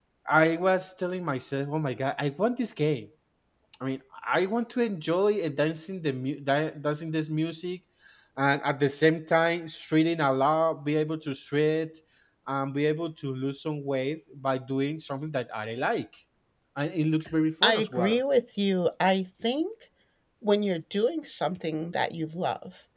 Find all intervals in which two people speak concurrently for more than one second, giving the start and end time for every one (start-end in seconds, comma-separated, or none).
none